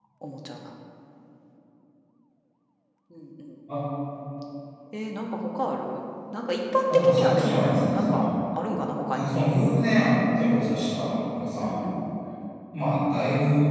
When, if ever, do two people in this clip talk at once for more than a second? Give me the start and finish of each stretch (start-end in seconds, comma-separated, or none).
6.9-8.1